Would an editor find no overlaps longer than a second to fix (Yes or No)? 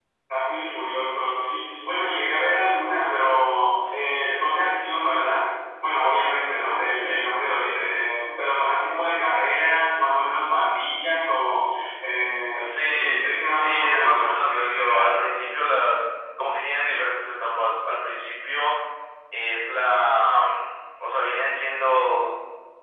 No